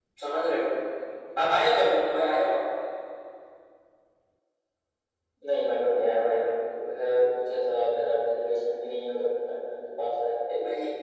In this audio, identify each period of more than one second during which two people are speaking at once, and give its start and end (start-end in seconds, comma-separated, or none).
none